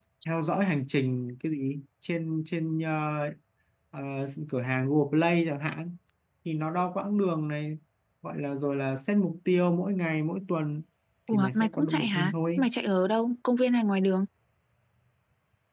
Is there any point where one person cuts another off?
Yes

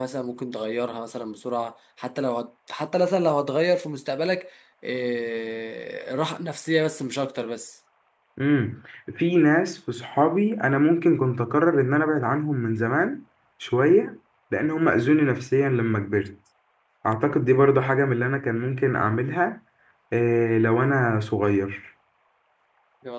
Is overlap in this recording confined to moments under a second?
Yes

